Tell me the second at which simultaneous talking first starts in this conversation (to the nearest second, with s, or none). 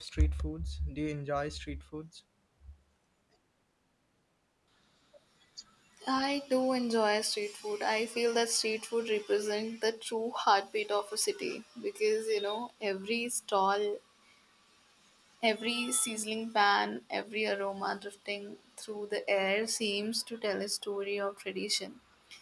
none